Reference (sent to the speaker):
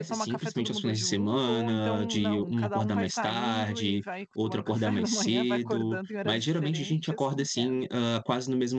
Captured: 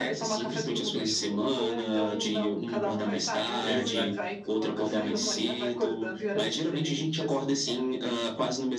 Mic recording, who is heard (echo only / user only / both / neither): both